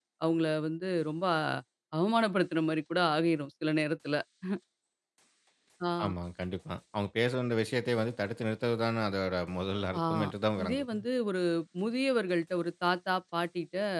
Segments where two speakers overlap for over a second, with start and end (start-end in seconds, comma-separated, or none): none